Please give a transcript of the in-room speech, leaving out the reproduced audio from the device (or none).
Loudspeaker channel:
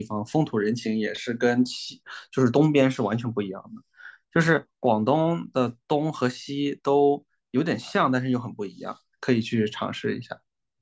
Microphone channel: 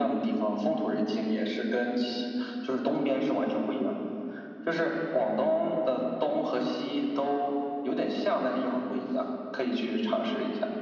none